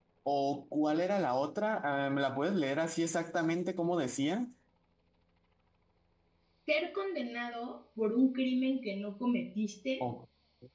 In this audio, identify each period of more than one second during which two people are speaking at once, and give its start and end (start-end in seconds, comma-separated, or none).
none